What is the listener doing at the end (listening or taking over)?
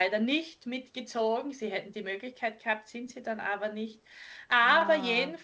listening